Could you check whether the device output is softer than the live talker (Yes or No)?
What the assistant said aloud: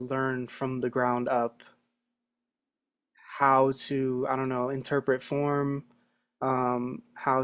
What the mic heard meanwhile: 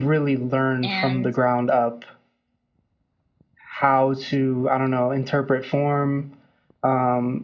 No